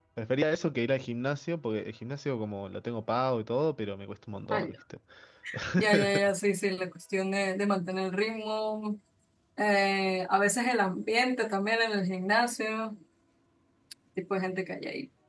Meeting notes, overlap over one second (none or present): none